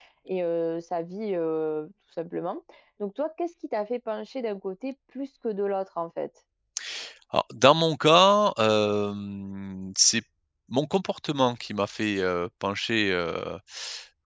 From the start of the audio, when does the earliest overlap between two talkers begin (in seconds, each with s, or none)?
none